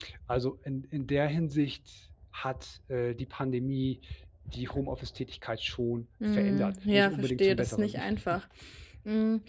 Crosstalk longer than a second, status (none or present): present